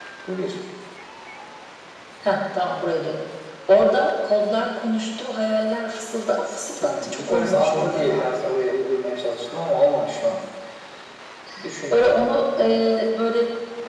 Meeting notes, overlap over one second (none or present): present